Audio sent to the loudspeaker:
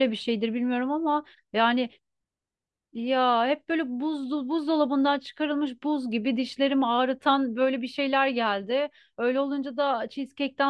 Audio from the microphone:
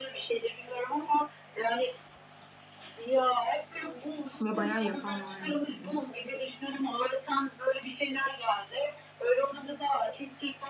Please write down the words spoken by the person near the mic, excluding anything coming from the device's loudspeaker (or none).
Ve bayağı yapan var yani.